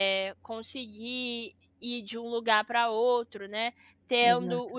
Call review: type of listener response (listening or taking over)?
listening